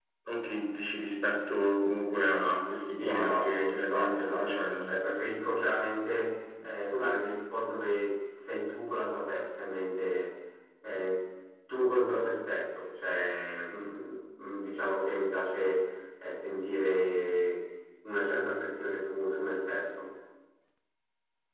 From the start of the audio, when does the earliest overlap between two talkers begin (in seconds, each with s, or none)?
3.0 s